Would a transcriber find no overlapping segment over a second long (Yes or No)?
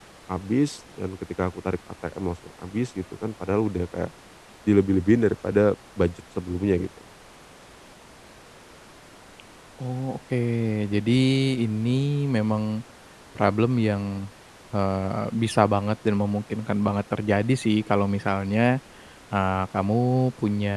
Yes